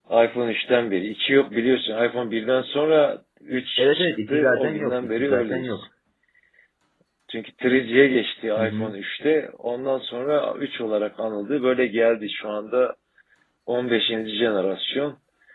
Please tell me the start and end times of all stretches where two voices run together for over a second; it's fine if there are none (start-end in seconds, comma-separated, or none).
3.8-5.8